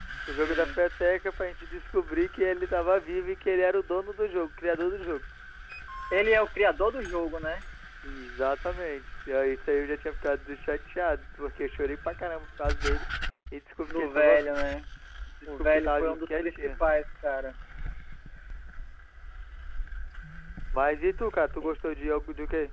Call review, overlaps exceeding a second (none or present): present